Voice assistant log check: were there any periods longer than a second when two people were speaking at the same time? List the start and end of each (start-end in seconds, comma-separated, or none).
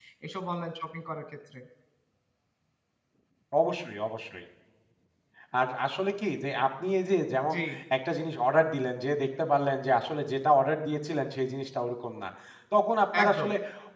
none